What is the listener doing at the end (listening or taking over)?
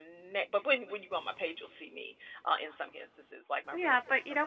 taking over